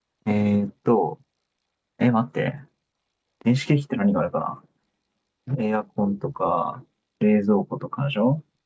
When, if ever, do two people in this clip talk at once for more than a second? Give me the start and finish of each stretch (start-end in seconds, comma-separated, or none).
none